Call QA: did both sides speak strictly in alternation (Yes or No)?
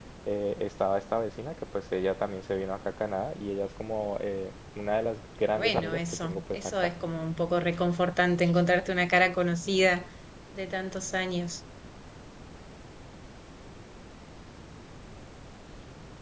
No